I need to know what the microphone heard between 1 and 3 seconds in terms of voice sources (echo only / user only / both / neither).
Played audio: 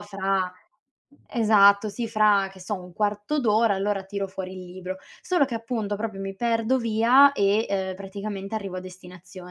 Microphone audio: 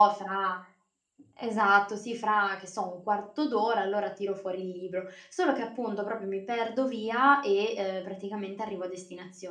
echo only